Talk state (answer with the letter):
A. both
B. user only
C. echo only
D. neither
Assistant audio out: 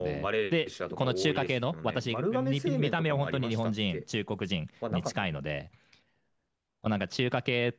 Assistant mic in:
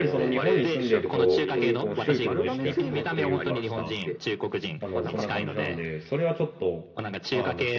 A